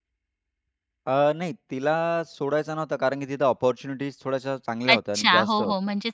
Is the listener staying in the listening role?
No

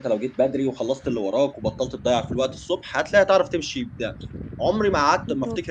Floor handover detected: No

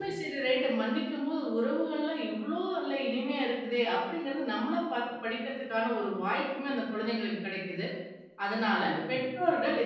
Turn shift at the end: No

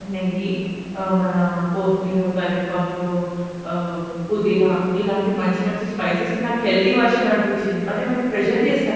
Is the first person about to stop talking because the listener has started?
Yes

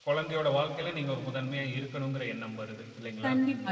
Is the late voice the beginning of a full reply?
Yes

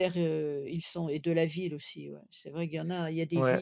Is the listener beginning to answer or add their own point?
Yes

